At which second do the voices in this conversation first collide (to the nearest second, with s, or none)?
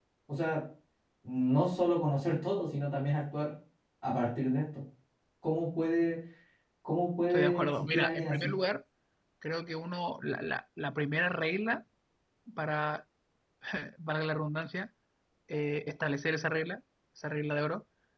7 s